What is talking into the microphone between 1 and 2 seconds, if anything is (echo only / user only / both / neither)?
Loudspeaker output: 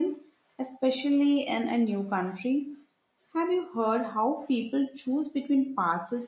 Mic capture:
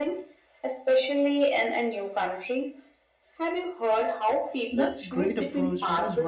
echo only